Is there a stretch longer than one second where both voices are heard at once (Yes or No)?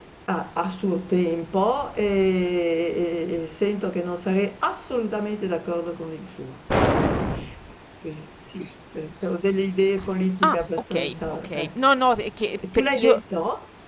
Yes